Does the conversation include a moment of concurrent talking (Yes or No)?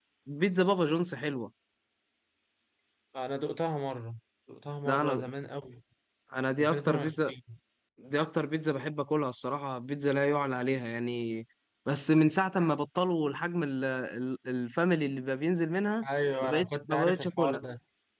Yes